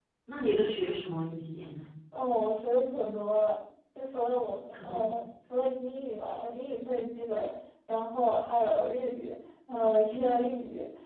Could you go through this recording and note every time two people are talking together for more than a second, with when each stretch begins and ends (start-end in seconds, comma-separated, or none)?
none